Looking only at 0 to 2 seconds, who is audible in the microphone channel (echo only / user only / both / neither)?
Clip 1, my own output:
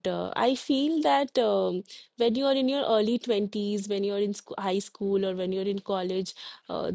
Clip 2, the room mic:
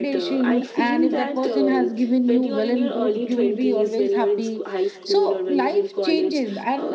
both